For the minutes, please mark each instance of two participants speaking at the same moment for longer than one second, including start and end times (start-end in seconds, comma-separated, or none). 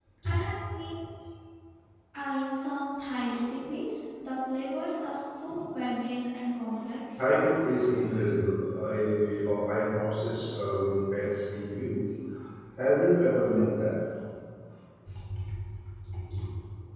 none